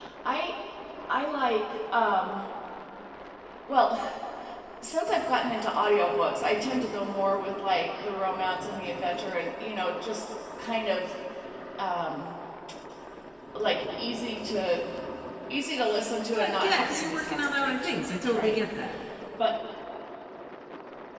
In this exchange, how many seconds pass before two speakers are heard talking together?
16.3 s

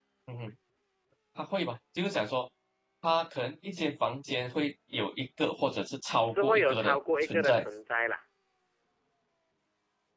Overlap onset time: 6.2 s

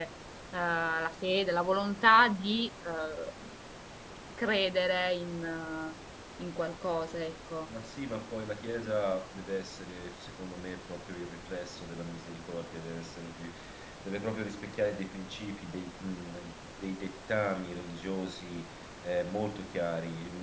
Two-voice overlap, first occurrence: none

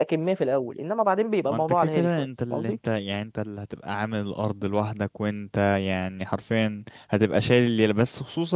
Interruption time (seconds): 1.5 s

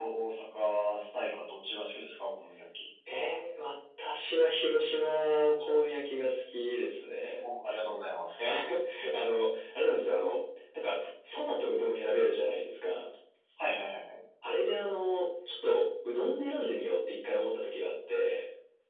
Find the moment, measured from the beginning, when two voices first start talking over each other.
none

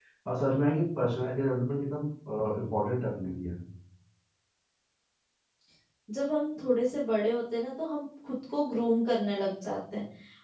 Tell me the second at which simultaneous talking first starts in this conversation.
none

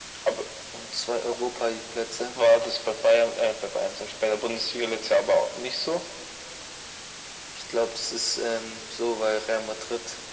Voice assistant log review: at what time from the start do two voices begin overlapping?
none

